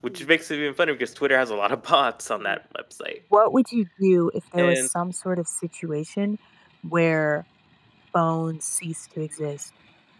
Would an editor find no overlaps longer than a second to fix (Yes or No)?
Yes